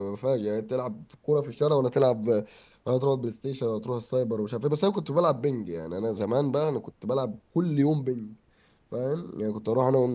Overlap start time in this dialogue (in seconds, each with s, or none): none